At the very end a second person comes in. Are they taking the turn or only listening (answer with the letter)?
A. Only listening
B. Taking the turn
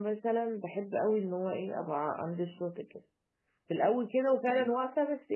A